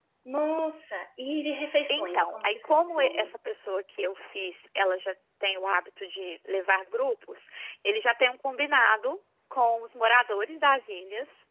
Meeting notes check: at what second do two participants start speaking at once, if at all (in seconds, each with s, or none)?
1.9 s